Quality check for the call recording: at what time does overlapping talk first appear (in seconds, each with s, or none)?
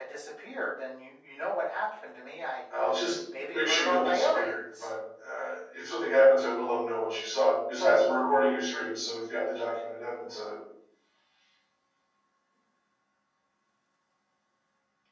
3.4 s